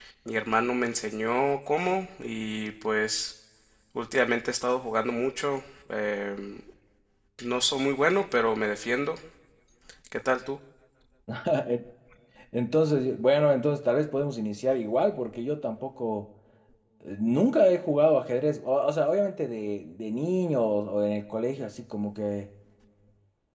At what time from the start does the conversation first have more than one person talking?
none

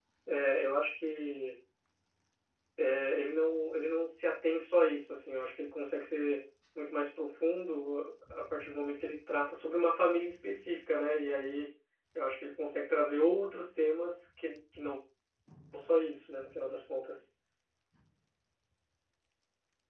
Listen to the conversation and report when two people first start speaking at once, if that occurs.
none

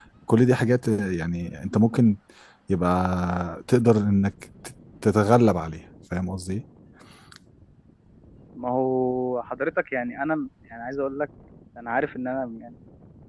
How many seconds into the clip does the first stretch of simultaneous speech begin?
none

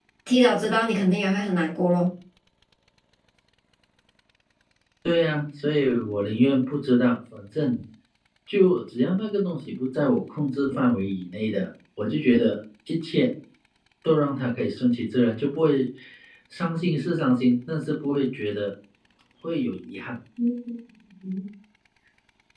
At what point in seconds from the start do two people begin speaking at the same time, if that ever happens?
none

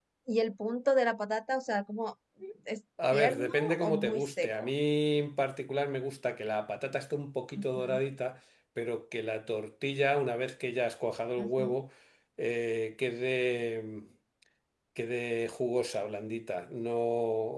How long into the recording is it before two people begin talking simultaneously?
3.1 s

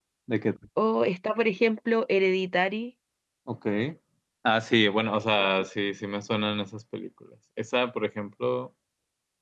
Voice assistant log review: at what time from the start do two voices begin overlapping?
none

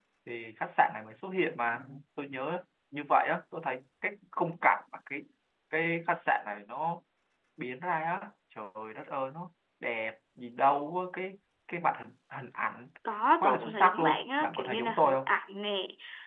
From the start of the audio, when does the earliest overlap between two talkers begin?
13.4 s

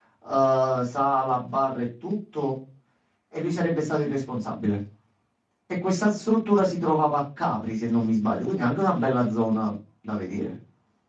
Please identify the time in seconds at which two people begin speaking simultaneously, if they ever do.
none

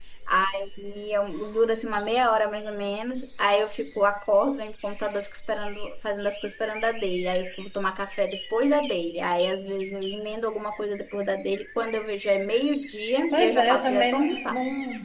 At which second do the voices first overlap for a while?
13.3 s

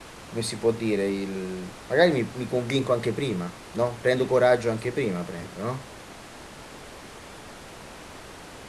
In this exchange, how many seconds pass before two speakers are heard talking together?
none

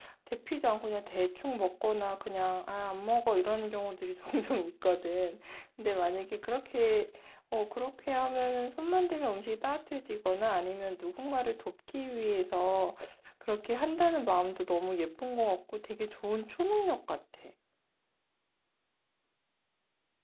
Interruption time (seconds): none

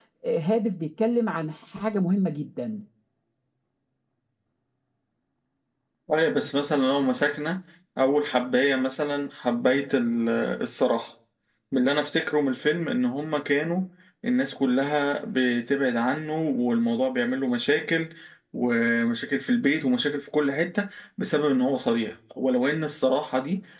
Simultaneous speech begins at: none

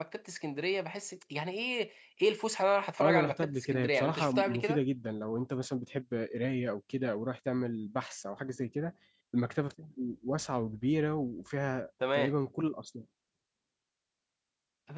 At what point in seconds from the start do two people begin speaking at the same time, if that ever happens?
3.0 s

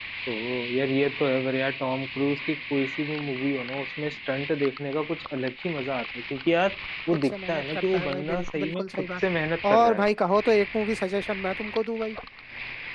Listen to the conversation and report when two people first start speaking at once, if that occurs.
7.1 s

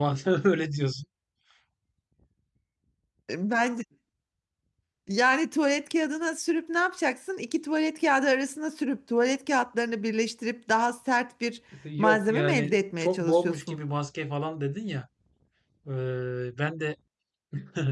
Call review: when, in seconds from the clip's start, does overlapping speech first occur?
12.0 s

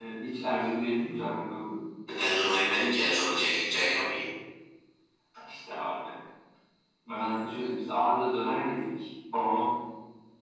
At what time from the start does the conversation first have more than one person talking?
none

